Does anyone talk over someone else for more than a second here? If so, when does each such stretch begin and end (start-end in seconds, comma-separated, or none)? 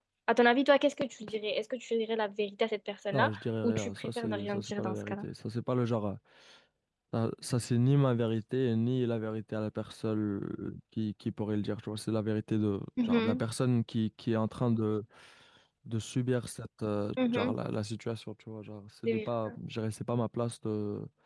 3.1-5.2